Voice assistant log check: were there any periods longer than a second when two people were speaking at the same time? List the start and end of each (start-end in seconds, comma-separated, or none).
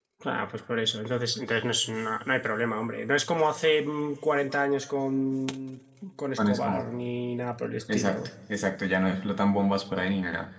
none